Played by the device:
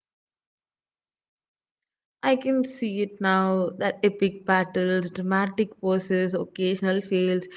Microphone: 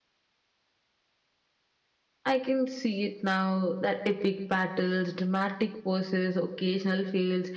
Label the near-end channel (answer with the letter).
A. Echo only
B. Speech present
A